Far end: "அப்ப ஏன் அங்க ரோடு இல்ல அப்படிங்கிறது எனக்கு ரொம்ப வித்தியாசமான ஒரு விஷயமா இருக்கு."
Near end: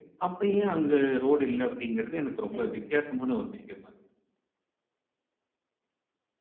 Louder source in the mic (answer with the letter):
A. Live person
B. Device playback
B